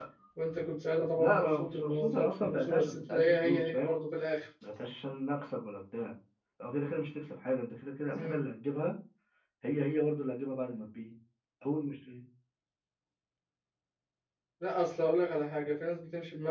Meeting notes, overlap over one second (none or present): present